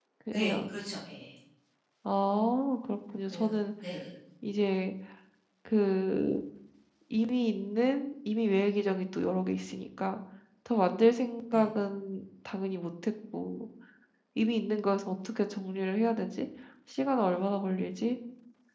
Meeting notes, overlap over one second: none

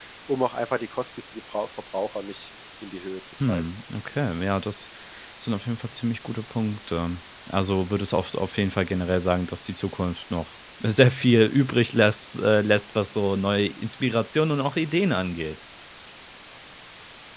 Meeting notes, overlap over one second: none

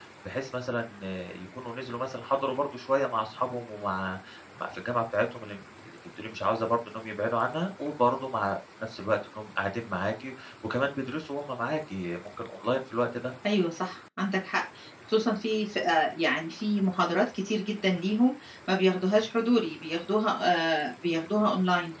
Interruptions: none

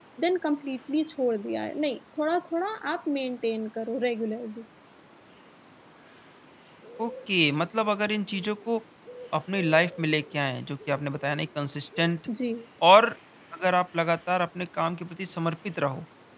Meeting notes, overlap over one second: none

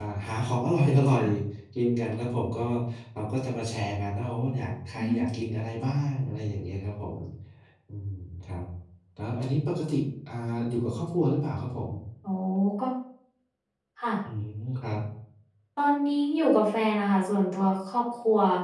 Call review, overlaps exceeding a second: none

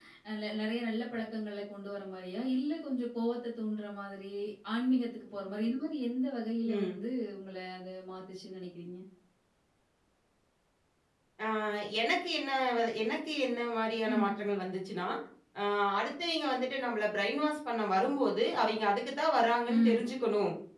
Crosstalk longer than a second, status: none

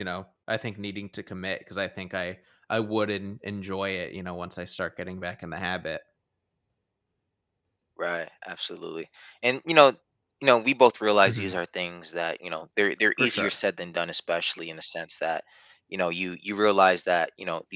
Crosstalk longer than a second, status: none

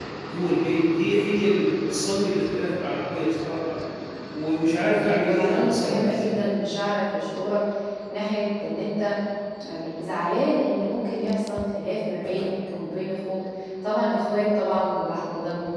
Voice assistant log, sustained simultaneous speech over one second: present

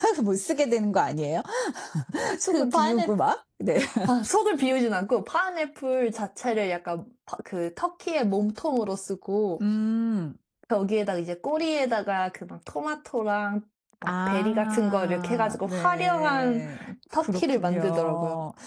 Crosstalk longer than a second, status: present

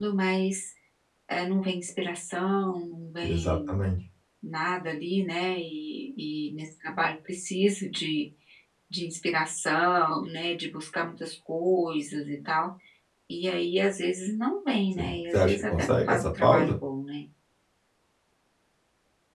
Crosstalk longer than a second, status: present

